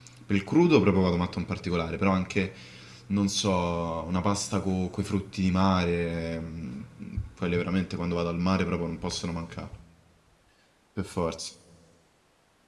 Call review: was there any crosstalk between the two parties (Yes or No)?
No